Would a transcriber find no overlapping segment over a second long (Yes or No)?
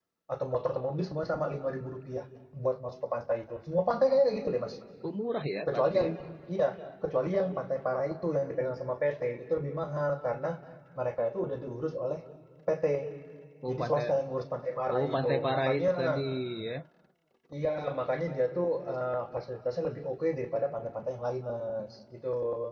No